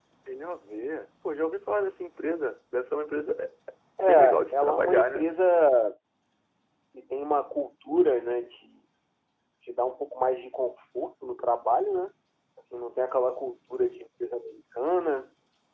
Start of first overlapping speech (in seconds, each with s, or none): 4.0 s